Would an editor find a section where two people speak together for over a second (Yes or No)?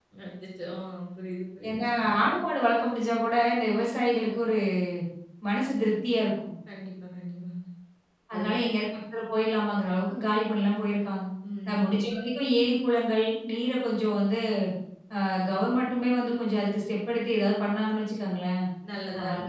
No